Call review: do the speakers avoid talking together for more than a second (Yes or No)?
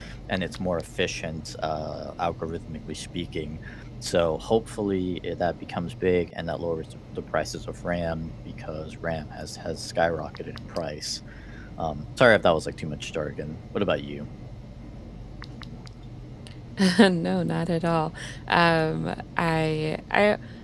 Yes